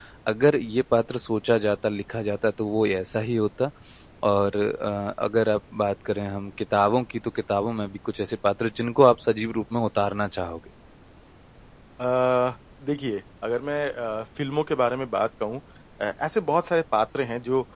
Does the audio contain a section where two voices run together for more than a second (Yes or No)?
No